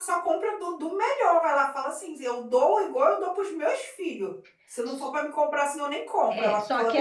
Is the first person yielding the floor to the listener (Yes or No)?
Yes